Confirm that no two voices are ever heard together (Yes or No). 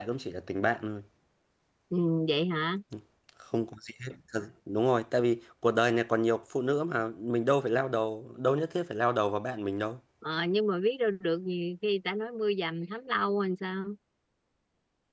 Yes